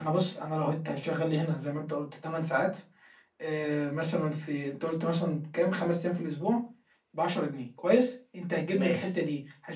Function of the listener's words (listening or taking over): listening